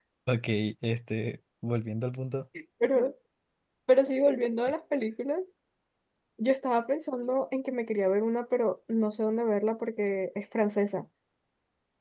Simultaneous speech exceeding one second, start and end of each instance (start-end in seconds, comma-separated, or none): none